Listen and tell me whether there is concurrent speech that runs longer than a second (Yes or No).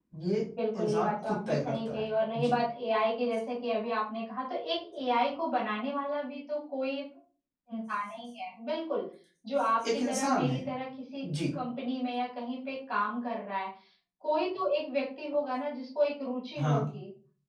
Yes